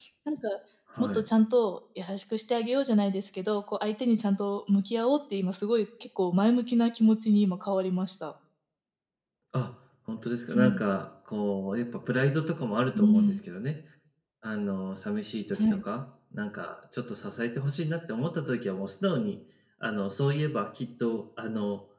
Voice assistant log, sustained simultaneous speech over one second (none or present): none